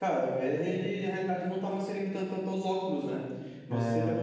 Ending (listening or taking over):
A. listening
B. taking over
A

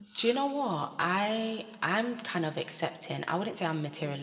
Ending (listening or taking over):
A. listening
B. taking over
A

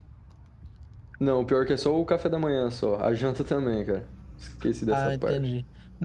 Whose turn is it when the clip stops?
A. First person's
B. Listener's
B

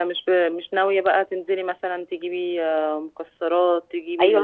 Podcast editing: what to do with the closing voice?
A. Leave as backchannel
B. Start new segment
B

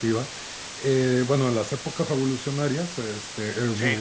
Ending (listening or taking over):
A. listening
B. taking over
A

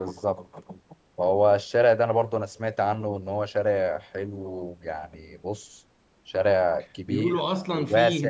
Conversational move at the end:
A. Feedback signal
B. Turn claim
B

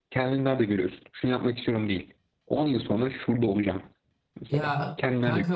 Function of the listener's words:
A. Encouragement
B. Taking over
B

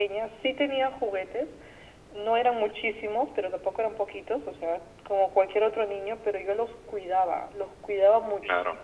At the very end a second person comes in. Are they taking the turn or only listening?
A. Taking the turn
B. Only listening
B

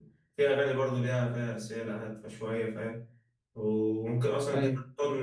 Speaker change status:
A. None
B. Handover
A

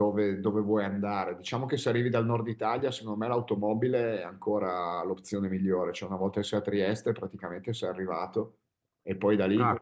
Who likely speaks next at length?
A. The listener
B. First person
A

